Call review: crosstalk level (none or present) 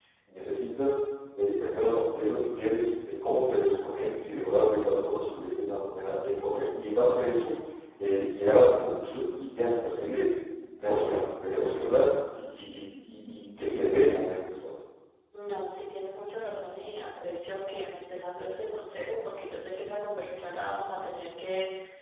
none